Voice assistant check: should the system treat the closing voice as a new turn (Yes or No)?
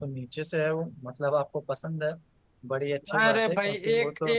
Yes